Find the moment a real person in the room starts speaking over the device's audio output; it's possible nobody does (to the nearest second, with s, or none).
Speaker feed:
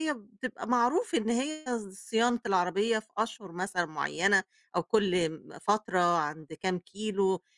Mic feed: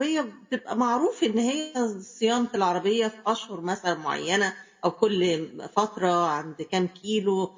none